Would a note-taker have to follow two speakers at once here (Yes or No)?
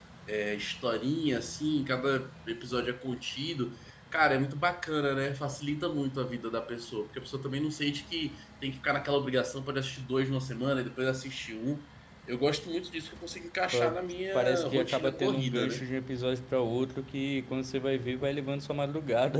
Yes